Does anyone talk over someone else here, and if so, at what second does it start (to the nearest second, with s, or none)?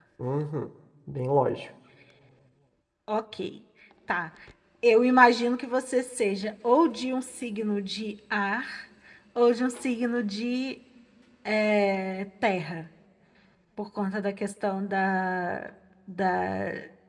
none